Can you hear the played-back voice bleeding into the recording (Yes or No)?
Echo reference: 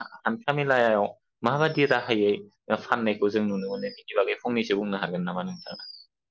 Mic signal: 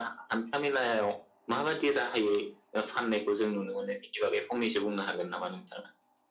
Yes